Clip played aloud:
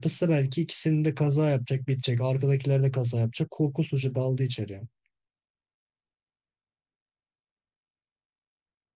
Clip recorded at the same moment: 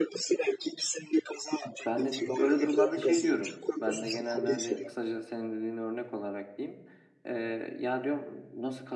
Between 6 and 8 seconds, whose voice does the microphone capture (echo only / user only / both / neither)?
user only